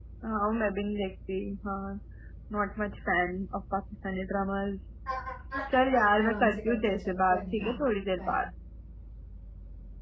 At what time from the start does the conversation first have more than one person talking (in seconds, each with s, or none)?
5.7 s